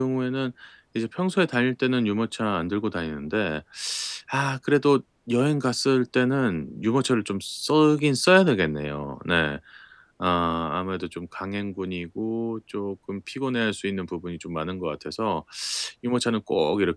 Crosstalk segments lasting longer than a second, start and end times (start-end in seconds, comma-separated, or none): none